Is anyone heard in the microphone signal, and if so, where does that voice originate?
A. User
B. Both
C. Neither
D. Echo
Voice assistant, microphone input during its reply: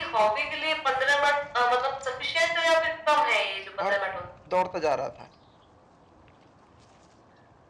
B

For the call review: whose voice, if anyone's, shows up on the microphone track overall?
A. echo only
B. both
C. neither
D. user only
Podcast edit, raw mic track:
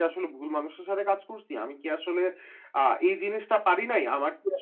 A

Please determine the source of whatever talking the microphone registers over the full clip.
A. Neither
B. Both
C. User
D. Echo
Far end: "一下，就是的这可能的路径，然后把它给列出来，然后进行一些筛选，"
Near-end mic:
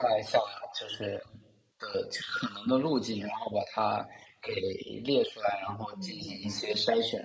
B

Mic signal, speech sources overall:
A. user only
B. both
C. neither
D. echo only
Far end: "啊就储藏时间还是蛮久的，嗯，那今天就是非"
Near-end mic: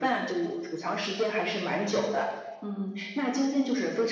D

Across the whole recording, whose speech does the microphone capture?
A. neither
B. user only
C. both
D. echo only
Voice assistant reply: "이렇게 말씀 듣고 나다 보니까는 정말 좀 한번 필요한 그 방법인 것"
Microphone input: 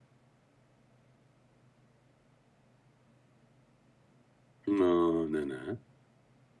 B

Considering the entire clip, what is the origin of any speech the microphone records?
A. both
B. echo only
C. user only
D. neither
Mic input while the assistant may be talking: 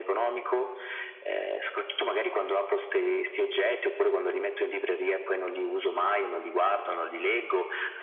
B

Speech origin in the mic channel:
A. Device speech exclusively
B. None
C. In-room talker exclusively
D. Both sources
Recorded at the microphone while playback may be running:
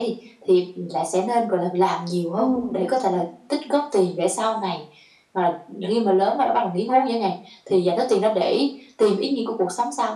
D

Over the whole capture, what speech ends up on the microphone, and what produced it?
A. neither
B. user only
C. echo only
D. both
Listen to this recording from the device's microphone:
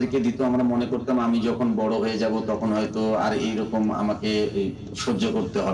C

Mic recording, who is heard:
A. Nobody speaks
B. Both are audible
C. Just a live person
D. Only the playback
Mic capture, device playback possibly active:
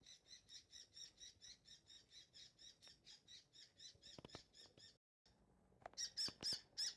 A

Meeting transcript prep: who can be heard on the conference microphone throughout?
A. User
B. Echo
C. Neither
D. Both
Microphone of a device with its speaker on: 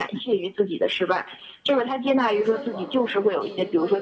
D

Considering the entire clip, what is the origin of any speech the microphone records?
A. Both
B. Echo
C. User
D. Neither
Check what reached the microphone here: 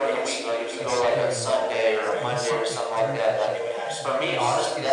A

